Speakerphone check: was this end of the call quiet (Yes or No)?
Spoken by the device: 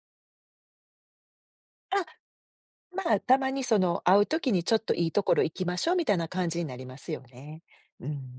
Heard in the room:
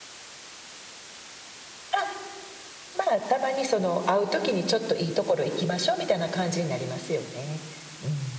Yes